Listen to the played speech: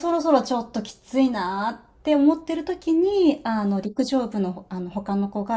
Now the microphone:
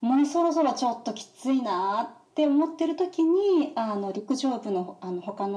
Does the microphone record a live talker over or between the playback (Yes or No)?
No